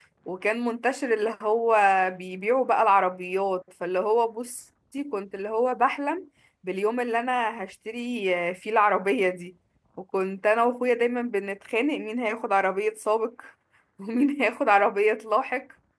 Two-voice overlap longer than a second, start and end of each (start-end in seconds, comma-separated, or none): none